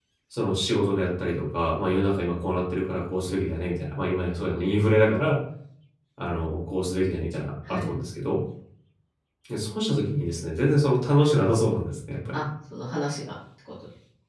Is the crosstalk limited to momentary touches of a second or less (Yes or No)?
Yes